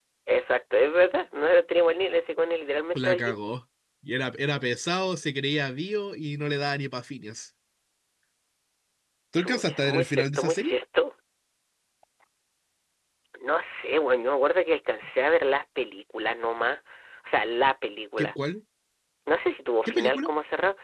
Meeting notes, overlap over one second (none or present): present